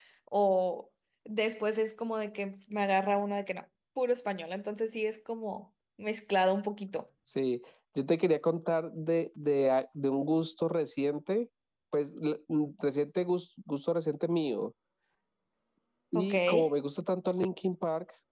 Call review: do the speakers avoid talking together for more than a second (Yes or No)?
Yes